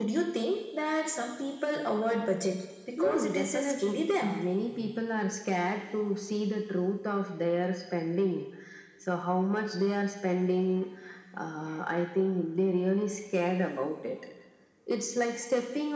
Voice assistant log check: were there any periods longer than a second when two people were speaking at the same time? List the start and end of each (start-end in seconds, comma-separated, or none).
3.0-4.3